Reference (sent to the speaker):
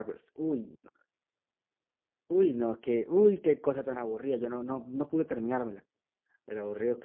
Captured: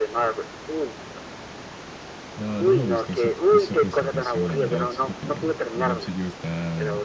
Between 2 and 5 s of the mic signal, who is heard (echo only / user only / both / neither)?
both